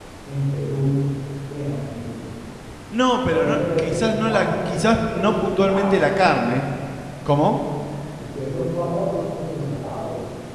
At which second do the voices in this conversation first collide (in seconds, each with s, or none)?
3.3 s